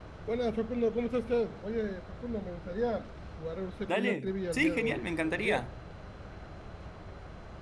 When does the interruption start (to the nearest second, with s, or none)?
4 s